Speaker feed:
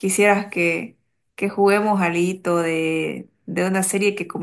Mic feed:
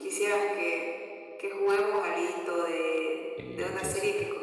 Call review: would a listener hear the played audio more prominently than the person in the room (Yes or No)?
Yes